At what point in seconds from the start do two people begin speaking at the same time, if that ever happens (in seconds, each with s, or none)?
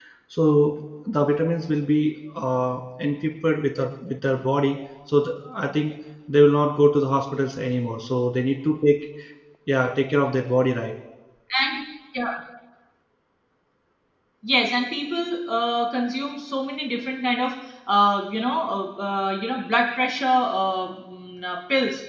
none